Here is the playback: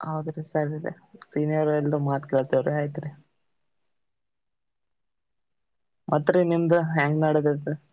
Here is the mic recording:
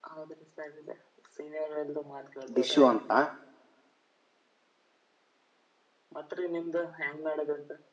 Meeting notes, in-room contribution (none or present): present